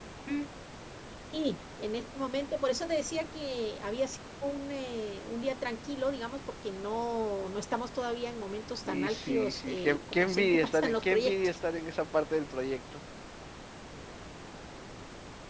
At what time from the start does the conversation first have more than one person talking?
8.9 s

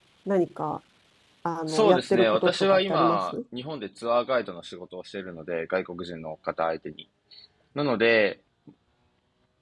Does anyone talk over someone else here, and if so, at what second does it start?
1.7 s

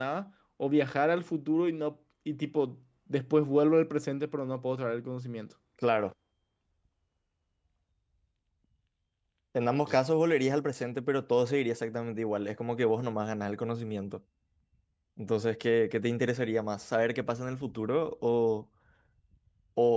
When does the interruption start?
none

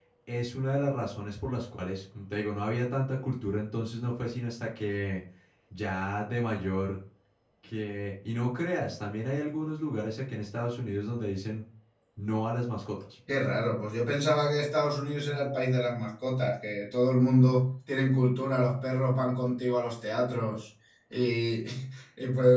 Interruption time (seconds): none

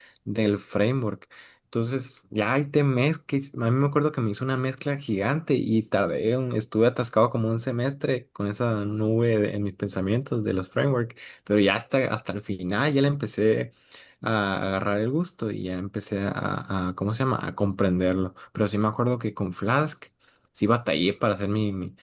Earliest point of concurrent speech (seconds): none

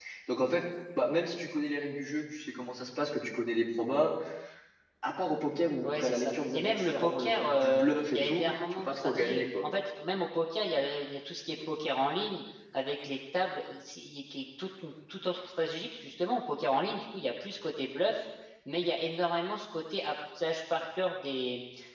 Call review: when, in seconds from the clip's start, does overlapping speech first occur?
5.8 s

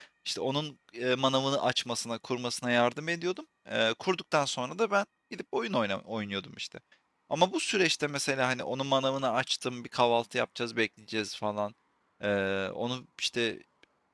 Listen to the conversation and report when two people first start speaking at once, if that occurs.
none

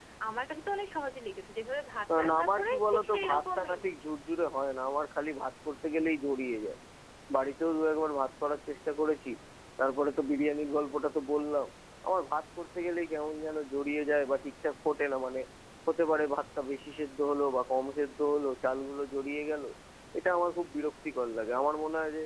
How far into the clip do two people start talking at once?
2.1 s

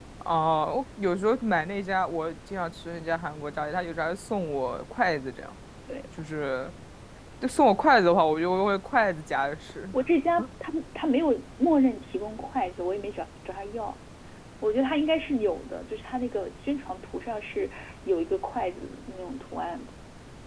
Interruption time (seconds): none

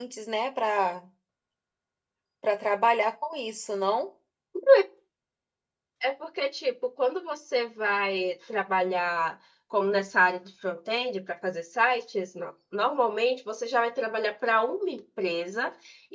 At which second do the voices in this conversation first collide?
none

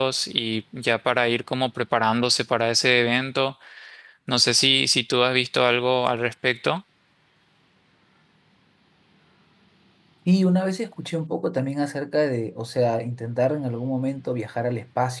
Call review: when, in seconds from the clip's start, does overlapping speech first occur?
none

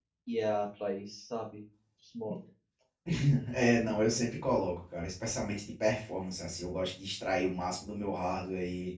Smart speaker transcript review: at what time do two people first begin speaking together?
none

